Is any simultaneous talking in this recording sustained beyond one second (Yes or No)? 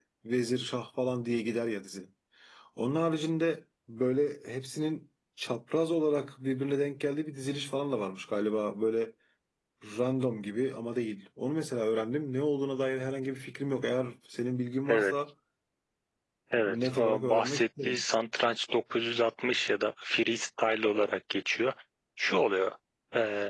Yes